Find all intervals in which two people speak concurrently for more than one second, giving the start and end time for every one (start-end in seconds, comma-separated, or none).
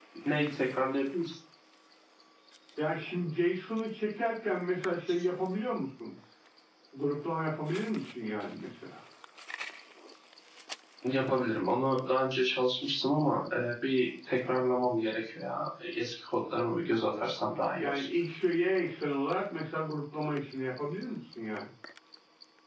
none